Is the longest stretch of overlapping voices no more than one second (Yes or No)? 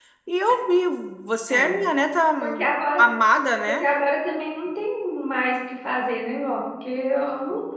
Yes